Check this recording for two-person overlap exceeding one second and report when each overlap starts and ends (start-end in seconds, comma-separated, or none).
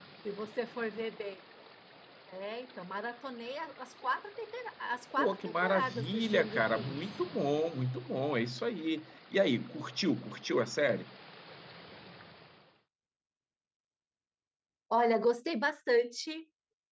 5.2-7.0